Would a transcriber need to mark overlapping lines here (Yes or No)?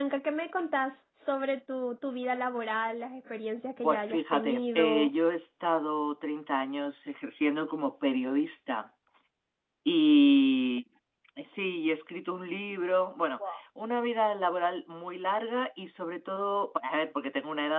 Yes